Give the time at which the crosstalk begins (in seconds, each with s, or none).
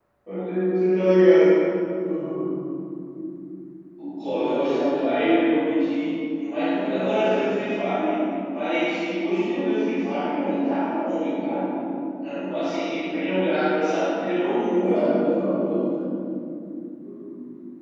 4.2 s